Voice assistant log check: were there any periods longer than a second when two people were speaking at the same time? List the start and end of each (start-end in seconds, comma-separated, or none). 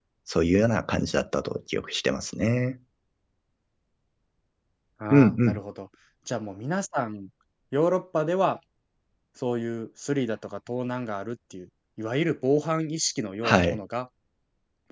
none